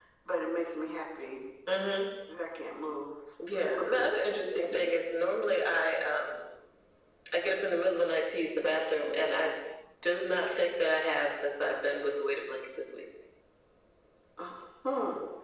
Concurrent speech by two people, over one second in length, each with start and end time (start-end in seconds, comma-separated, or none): none